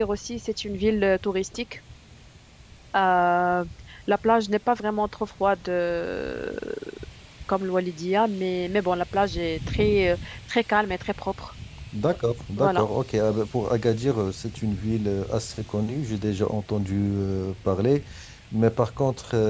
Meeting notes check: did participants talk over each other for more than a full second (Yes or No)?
No